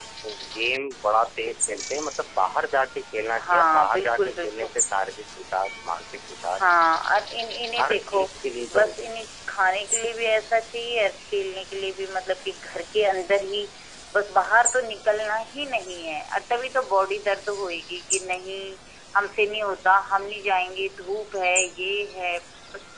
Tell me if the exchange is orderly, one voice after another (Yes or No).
No